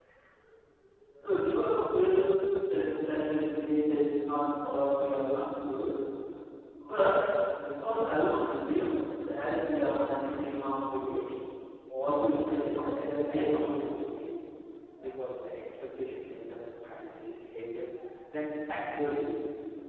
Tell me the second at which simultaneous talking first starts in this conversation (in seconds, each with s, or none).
12.3 s